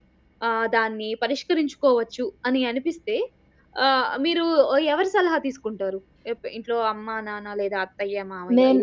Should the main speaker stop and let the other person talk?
Yes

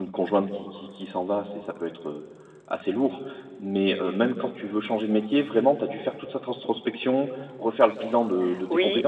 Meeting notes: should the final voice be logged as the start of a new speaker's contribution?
Yes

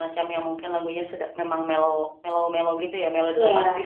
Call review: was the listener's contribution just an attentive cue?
No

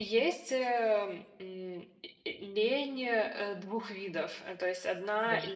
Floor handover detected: No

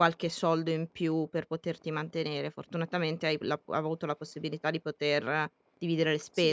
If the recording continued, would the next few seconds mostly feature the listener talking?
Yes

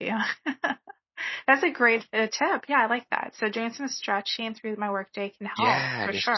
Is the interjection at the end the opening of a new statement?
Yes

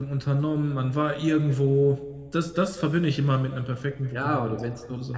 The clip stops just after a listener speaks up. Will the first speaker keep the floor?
No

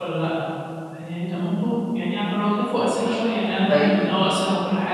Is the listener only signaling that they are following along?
Yes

